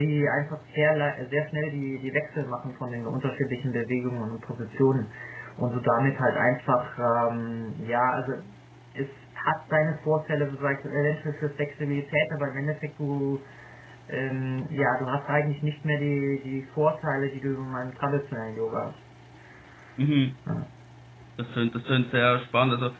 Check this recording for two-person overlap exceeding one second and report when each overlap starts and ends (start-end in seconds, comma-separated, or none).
none